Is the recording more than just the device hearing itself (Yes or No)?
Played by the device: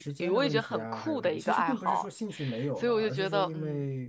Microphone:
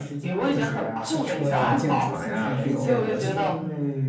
Yes